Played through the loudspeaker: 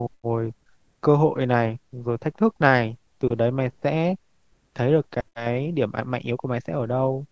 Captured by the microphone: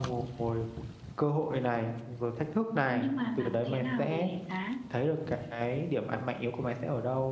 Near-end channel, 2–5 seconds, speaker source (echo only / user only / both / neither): both